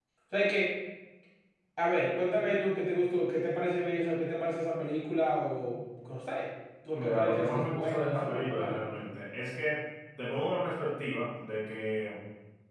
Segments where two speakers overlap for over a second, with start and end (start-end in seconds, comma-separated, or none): 6.9-8.8